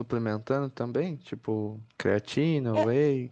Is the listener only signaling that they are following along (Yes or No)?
No